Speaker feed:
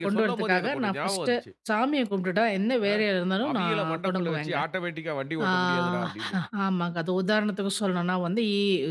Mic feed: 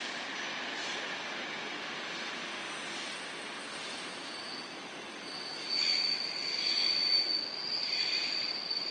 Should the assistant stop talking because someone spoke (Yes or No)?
No